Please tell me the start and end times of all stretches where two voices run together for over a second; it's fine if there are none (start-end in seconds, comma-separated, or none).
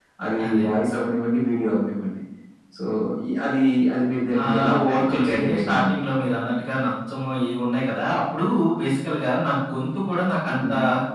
4.4-5.9